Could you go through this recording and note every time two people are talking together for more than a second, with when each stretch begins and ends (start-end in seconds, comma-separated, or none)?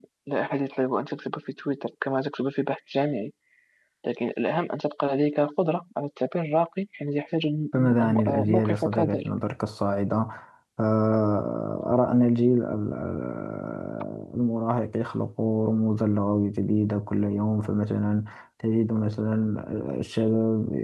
7.7-9.3